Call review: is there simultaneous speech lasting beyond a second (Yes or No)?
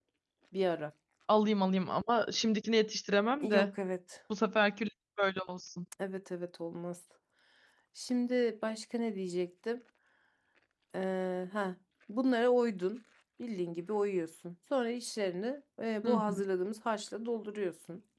No